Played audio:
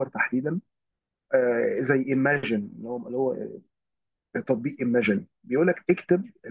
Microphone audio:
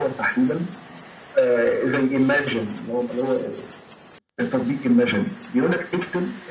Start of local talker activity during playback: none

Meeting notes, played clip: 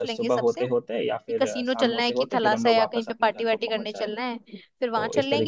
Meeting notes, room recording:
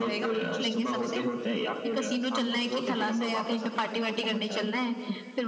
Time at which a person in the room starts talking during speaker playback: none

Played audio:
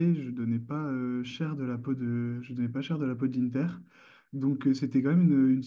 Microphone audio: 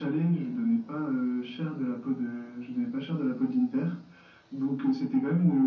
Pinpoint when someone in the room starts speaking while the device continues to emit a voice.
none

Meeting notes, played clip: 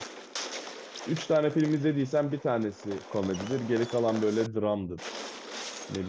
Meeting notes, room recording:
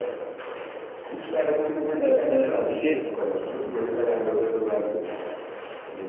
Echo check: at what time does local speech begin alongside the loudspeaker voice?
2.0 s

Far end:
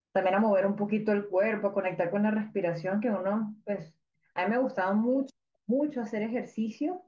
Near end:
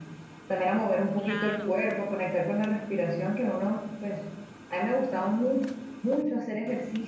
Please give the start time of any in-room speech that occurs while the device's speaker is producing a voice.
1.1 s

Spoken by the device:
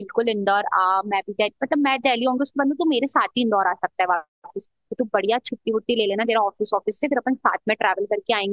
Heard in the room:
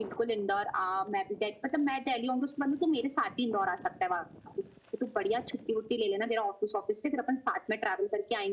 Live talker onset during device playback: none

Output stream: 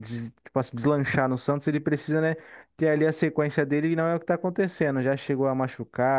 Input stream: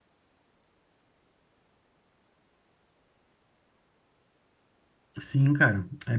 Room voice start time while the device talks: 5.2 s

